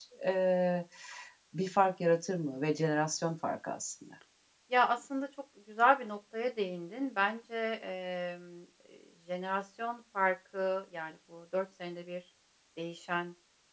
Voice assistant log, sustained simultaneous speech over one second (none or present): none